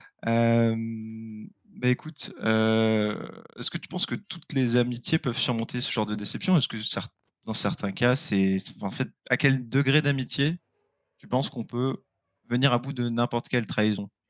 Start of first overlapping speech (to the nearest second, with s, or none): none